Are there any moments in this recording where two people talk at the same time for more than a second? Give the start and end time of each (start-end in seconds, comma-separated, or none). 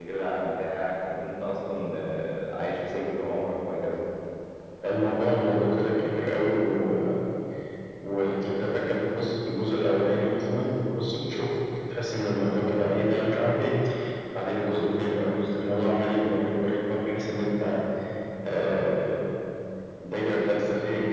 none